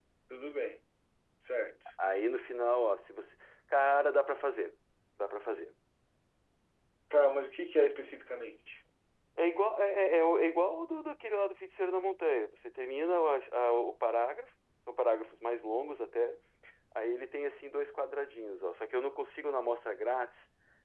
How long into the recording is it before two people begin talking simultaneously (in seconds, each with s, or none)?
none